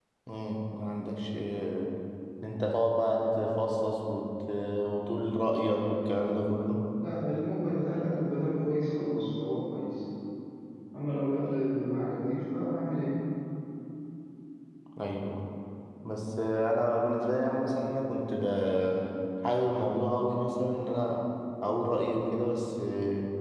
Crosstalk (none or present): none